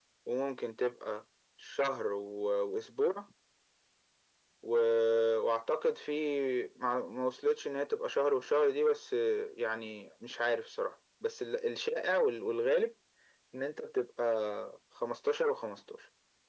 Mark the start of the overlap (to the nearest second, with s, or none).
none